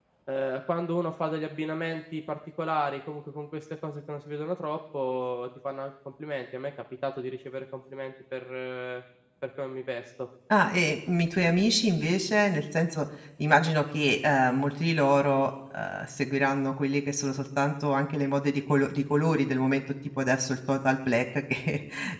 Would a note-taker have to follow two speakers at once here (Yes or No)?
No